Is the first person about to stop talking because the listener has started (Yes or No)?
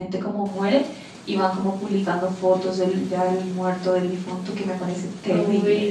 Yes